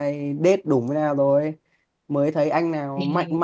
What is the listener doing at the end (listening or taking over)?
listening